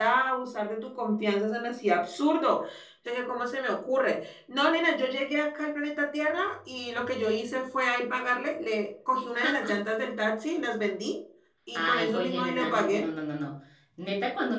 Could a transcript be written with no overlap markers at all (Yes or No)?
No